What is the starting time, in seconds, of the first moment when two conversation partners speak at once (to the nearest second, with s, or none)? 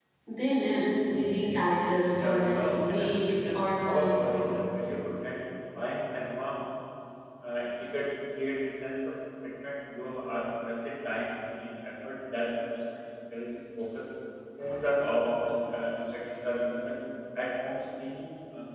2 s